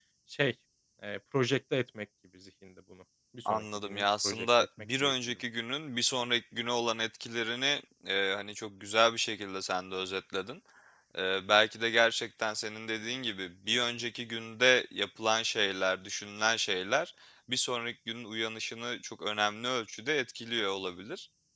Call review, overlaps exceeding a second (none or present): present